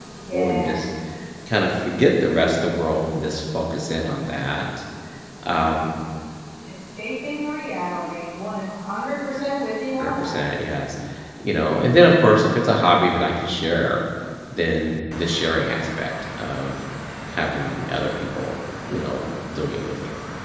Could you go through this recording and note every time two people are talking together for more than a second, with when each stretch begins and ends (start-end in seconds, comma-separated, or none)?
none